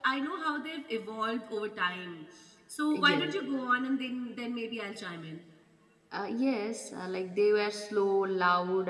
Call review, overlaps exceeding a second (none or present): none